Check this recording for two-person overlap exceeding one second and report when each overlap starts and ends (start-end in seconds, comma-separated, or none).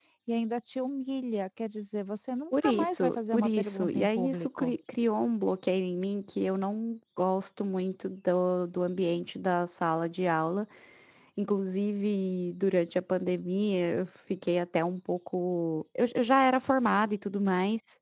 2.6-4.7